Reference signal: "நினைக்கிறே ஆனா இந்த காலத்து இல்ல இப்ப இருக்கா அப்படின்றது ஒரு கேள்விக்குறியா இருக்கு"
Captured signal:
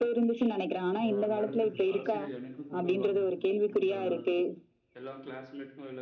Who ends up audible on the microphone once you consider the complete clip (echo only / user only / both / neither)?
both